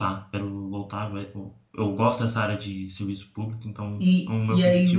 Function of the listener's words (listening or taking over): taking over